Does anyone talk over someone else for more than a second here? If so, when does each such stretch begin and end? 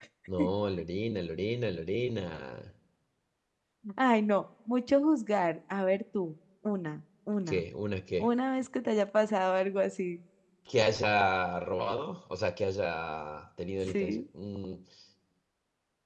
none

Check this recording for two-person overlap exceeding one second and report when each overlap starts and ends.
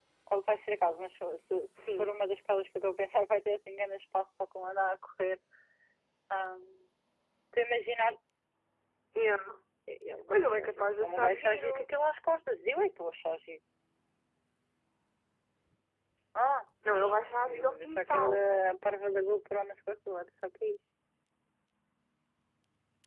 10.3-11.9, 17.0-18.4

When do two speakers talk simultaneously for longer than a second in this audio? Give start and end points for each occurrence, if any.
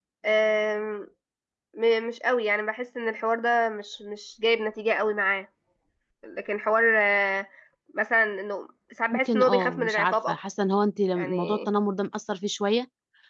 9.1-10.4

